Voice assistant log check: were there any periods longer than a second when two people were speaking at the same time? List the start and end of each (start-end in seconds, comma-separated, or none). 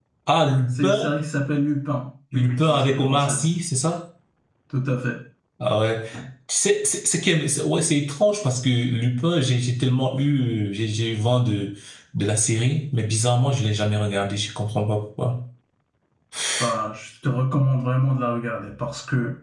2.3-3.5